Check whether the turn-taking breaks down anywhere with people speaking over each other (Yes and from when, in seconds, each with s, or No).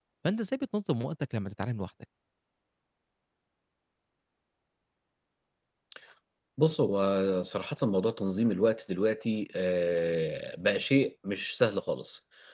No